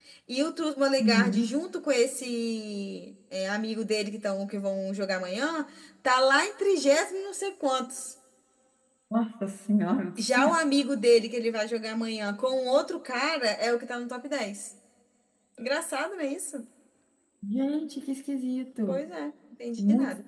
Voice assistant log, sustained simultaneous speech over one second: none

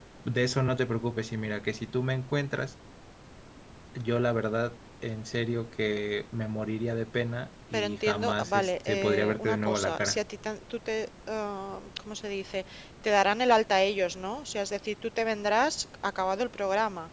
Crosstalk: present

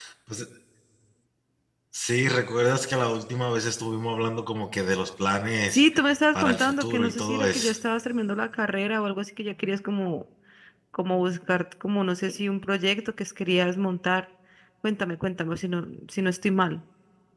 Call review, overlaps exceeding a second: present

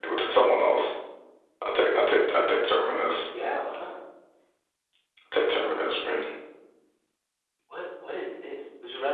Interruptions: none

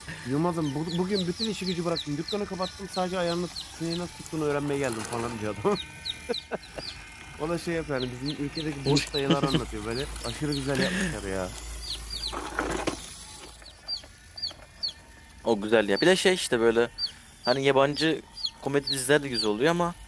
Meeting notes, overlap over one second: none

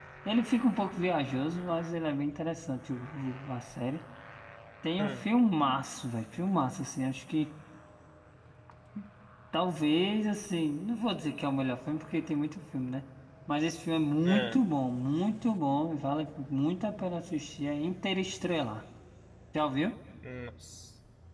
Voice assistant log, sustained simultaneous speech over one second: none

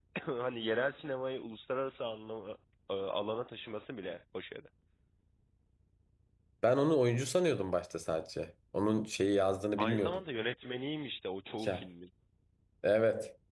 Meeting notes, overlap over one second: none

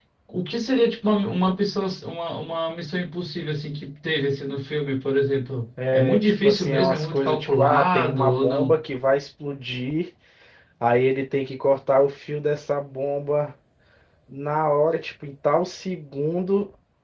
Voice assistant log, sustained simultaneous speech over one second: present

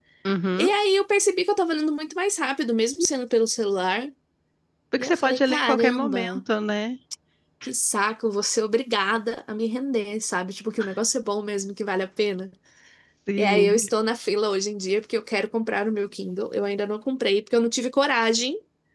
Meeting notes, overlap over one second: present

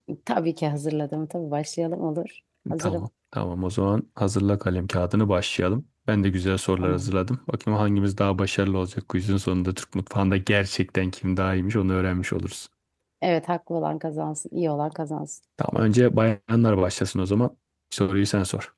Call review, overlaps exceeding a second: none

